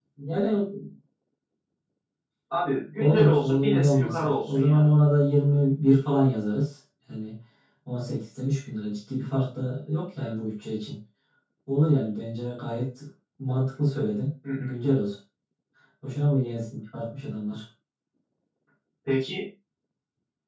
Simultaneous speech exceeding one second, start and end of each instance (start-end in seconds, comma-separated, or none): 2.9-4.8